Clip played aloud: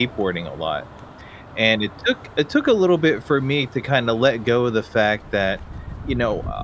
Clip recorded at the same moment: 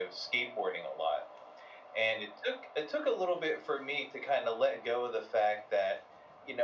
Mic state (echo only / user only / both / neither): echo only